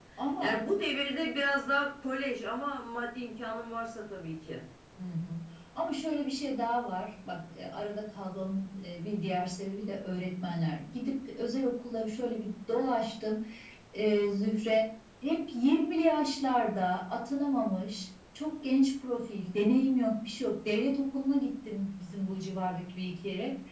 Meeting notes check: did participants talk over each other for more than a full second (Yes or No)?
No